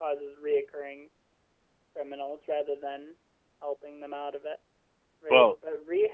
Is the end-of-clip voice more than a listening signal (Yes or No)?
No